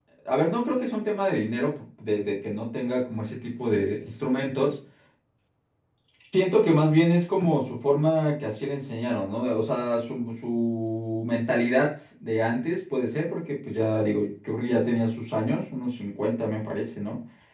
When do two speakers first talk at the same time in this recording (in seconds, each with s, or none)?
none